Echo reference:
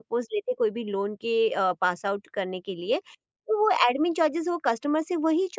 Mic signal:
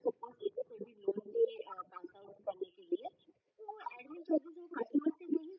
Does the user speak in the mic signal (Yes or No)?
No